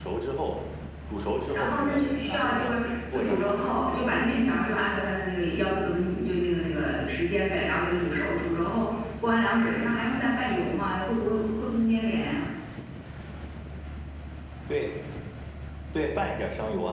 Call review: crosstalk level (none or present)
present